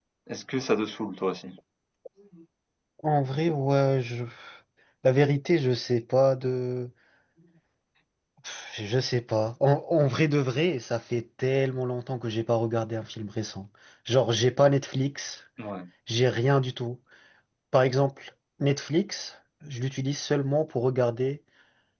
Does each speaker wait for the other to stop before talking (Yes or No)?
Yes